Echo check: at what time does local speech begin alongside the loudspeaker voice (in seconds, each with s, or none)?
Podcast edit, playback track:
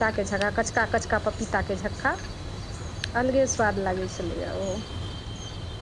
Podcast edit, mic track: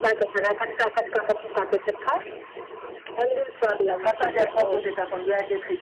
4.0 s